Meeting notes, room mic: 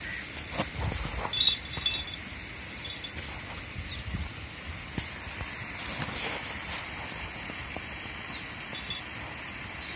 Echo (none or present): none